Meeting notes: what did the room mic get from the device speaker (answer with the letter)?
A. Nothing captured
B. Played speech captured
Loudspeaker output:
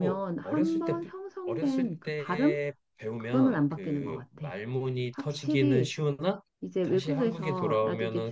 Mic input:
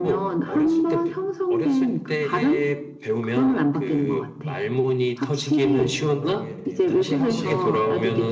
B